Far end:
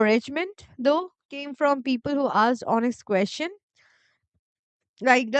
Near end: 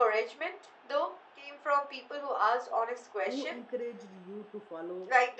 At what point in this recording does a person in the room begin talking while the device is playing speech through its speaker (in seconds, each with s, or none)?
3.2 s